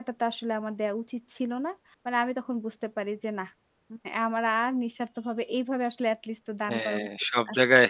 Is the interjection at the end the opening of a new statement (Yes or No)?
Yes